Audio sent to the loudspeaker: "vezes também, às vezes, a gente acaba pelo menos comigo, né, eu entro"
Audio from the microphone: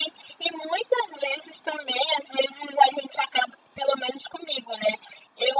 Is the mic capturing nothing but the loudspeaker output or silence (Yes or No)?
Yes